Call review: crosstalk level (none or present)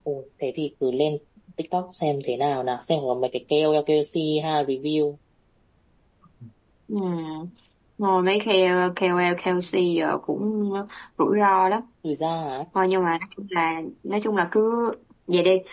none